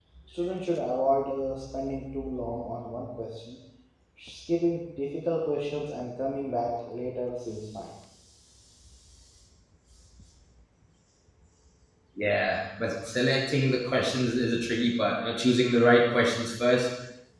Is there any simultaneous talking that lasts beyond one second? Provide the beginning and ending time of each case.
none

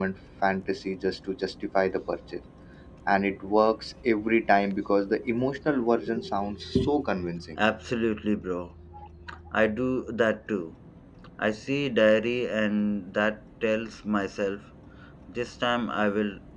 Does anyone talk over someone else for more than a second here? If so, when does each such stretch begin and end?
none

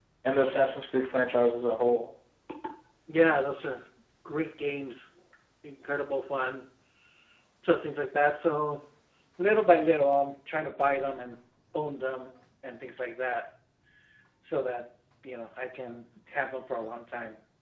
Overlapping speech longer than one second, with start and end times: none

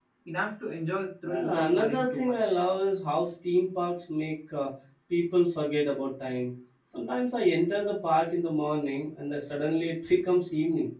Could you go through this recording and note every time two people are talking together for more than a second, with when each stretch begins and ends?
1.3-2.6

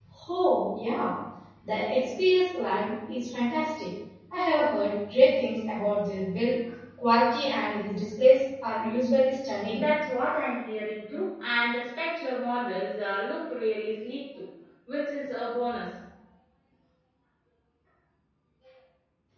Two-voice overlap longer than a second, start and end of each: none

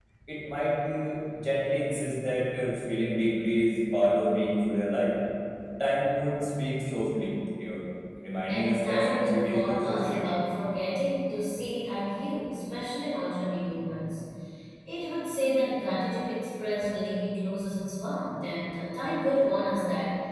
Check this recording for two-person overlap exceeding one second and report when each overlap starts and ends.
8.5-10.3

